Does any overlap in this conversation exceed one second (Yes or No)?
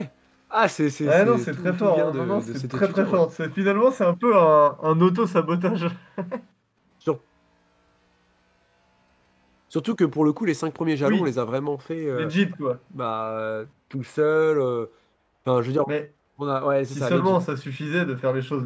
Yes